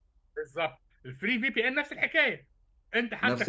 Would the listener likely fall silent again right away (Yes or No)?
No